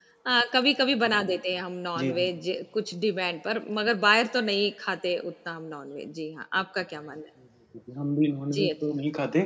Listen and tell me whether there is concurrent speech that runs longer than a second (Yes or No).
No